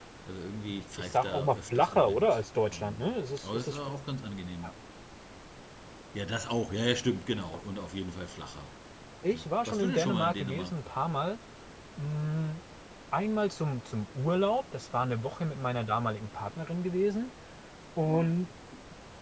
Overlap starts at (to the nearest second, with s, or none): 1 s